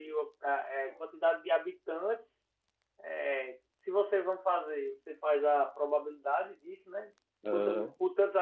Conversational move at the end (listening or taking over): listening